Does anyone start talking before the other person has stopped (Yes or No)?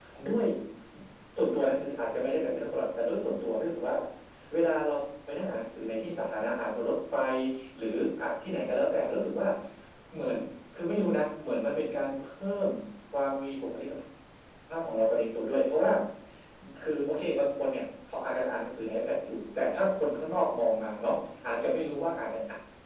No